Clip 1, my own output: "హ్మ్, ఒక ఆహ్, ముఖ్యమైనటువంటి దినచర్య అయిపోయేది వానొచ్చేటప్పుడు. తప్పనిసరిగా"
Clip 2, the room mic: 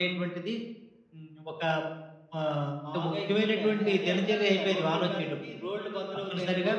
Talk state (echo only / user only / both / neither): both